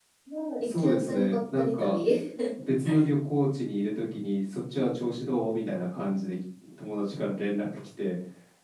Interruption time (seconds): 0.6 s

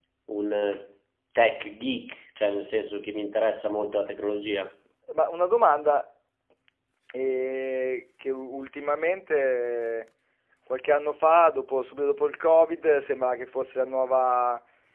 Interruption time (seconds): none

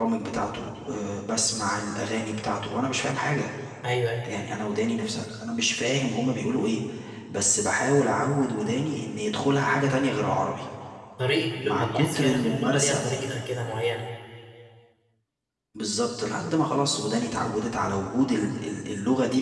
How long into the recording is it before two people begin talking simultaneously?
11.6 s

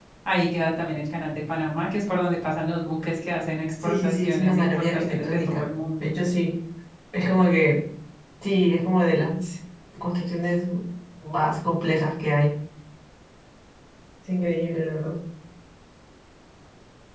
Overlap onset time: 3.8 s

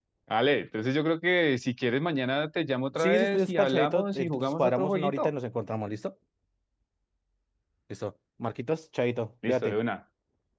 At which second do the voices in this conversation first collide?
3.0 s

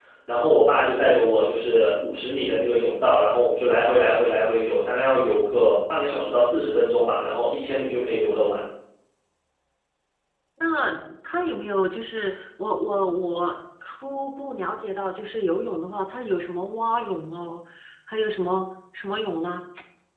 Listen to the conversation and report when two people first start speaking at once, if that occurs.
none

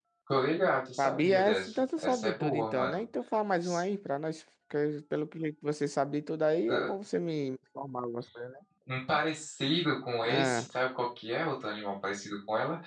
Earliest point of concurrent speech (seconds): 1.0 s

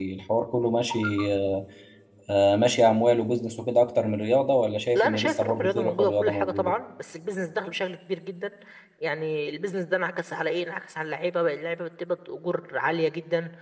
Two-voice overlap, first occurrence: 5.0 s

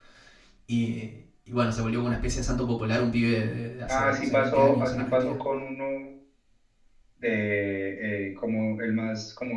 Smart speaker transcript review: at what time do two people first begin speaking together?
3.9 s

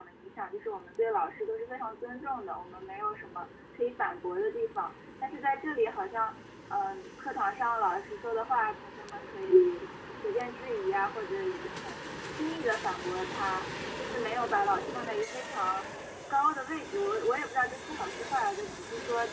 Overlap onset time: none

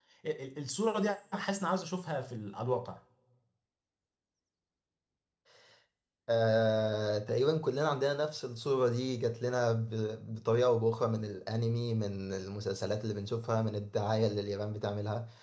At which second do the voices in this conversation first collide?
none

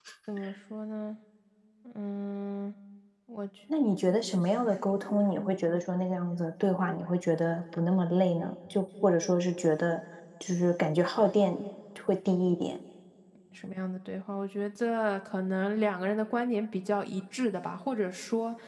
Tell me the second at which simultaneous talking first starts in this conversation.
none

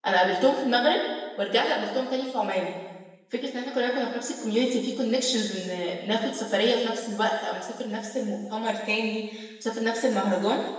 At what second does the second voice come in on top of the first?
none

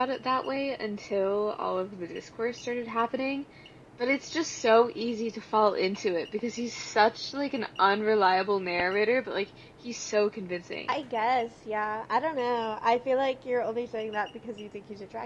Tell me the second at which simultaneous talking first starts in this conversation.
none

